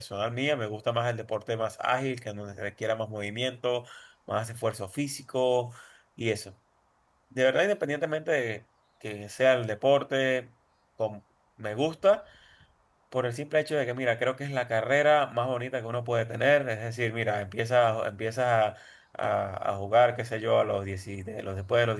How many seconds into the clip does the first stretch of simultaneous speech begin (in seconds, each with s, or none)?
none